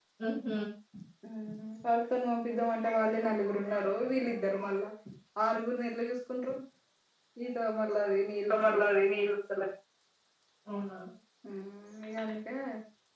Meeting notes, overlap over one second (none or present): none